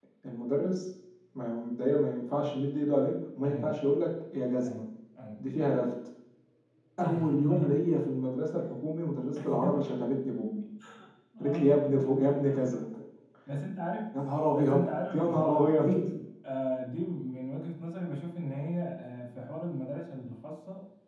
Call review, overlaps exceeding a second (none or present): present